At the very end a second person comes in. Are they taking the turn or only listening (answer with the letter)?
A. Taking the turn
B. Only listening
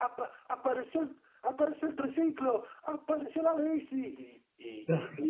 B